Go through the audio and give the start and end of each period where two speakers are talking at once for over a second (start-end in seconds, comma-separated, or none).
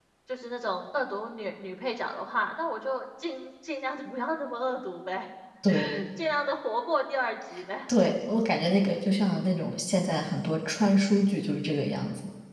none